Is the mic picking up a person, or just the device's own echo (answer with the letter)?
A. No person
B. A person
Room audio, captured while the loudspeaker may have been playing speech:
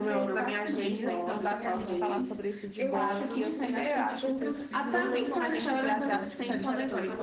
B